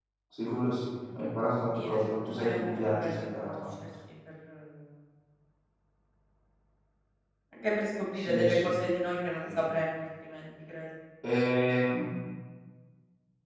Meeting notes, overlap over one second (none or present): present